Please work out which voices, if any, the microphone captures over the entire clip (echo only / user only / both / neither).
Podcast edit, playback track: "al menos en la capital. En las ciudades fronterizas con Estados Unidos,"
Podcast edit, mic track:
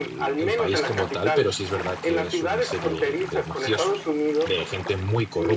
both